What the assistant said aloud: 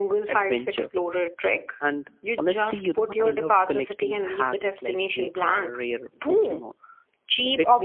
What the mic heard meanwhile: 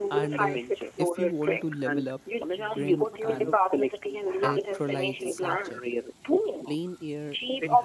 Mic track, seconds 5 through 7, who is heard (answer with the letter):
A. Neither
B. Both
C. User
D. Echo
B